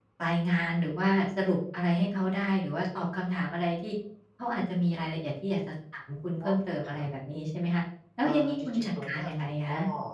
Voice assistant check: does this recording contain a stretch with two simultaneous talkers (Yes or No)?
Yes